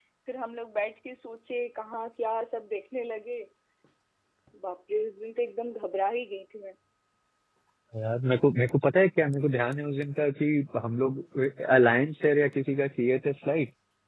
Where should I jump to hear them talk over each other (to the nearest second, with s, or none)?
none